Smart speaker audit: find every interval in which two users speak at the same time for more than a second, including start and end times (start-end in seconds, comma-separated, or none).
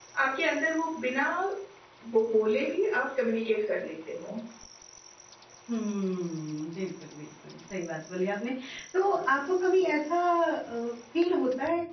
none